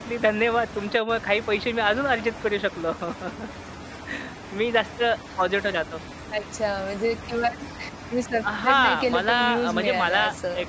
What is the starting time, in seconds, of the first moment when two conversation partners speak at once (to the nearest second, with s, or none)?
8 s